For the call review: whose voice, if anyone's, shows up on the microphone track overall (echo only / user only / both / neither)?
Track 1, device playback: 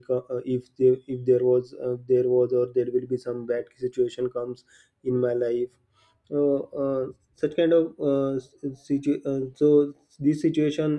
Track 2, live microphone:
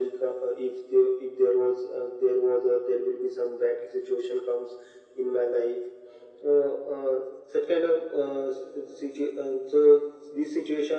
echo only